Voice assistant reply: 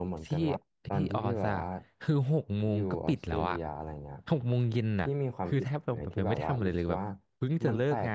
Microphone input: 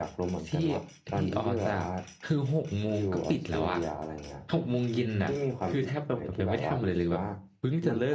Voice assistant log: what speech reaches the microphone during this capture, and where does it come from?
echo only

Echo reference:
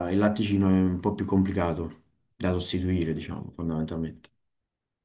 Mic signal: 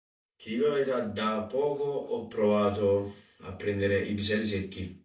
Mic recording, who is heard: user only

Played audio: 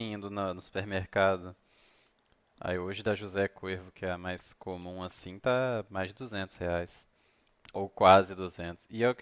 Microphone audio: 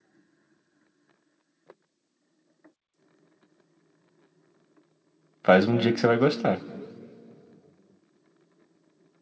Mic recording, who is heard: user only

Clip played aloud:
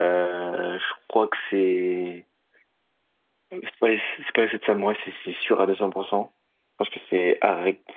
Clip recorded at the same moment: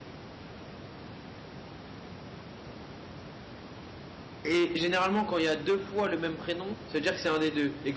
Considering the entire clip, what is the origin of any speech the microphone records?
user only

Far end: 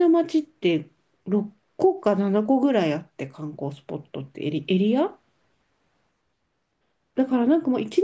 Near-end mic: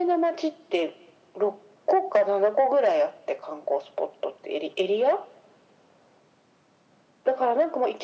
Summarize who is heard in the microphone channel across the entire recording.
echo only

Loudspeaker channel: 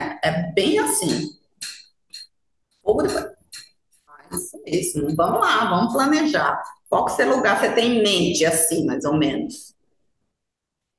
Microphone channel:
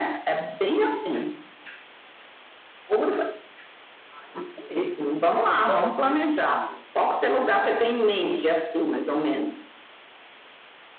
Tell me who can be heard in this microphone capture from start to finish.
both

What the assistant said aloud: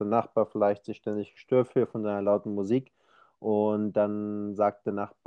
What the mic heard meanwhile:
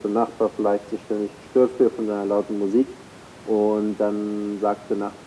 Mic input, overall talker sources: echo only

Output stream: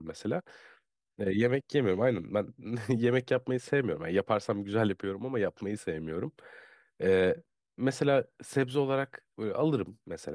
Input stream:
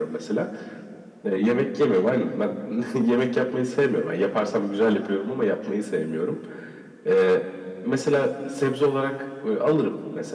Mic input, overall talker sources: echo only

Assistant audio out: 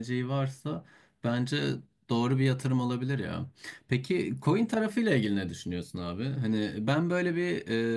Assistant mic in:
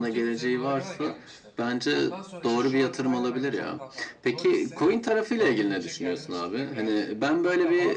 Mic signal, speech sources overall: both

